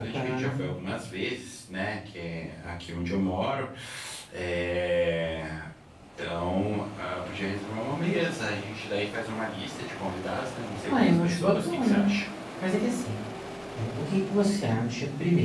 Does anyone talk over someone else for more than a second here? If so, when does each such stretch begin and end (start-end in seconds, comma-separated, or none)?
10.9-12.1